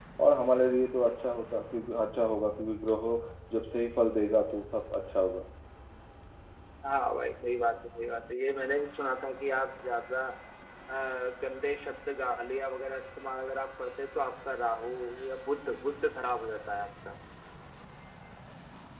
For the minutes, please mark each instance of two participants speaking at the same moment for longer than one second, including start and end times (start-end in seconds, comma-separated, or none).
none